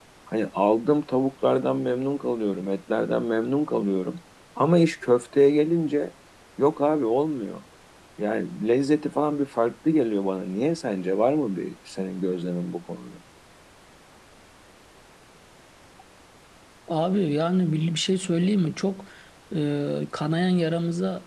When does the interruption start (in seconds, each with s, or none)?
none